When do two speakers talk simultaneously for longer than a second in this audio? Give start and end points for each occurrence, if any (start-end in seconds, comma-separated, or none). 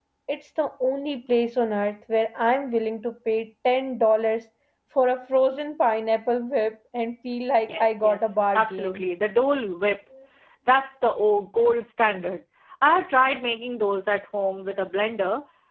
7.7-9.0